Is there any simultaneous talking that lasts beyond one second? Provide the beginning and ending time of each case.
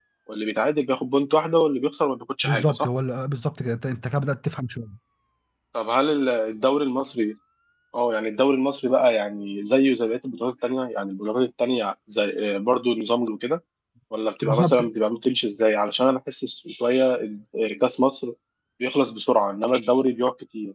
none

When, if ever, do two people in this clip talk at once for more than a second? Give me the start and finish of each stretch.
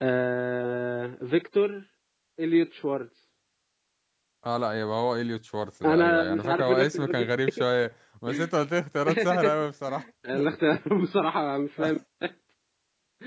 5.8-7.3

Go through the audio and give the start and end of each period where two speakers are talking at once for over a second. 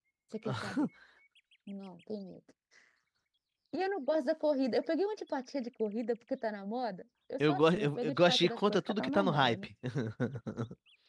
7.4-9.7

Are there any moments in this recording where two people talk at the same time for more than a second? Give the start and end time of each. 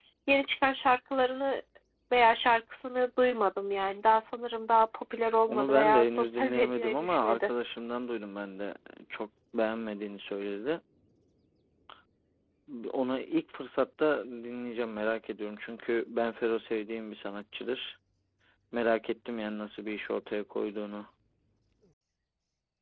5.5-7.5

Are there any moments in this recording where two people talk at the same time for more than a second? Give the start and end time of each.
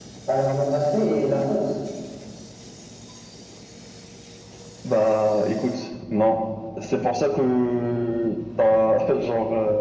none

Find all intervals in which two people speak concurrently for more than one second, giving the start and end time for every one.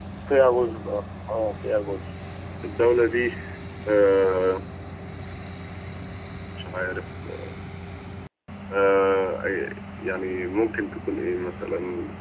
none

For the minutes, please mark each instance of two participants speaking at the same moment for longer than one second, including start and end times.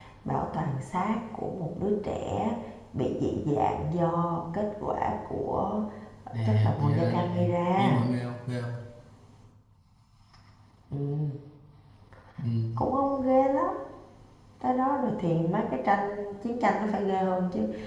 6.5-8.0

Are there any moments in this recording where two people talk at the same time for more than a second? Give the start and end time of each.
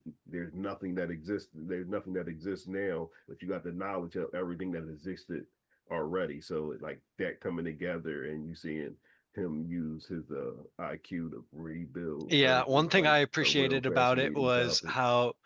12.3-14.9

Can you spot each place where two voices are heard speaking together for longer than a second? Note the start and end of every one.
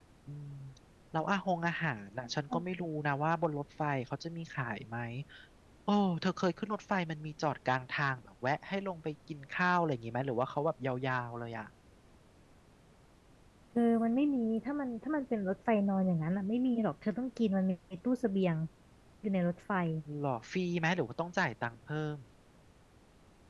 none

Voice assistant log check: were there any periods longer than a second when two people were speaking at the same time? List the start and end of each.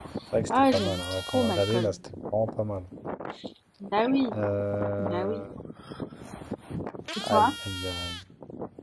0.7-1.9

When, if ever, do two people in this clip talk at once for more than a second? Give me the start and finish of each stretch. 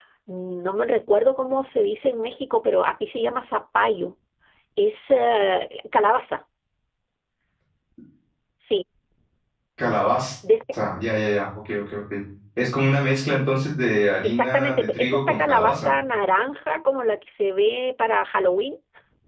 14.2-15.9

